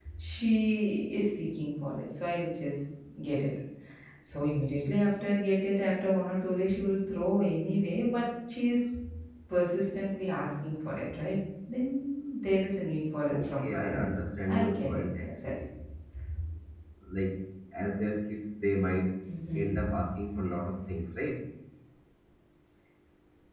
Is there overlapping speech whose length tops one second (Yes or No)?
Yes